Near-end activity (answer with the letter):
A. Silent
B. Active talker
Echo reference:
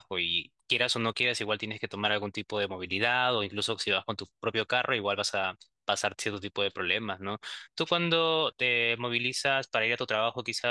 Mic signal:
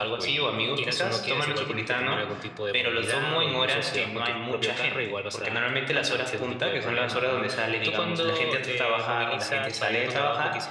B